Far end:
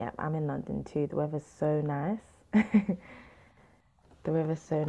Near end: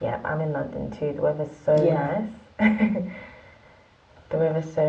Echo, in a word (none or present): present